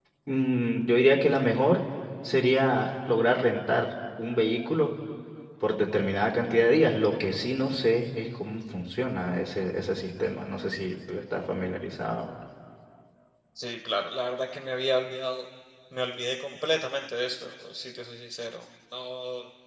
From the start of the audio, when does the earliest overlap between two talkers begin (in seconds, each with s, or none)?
none